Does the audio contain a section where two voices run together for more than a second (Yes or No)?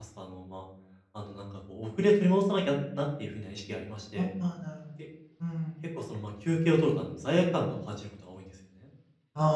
No